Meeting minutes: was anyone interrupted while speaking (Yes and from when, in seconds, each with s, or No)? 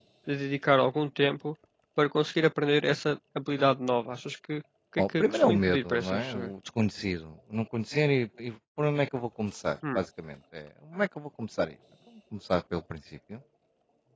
Yes, from 5.0 s